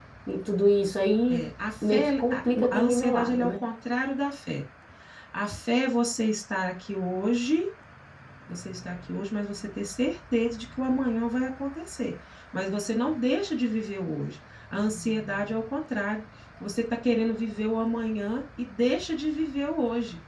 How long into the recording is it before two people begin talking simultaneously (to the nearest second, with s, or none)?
2 s